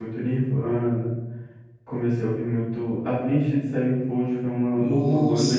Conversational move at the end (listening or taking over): taking over